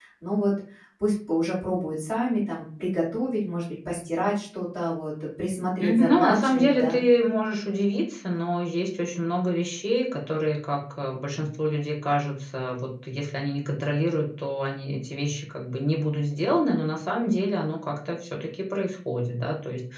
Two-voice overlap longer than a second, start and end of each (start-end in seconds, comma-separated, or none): 5.8-7.0